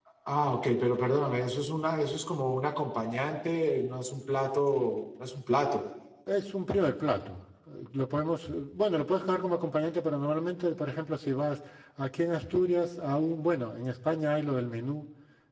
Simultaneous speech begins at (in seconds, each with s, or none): none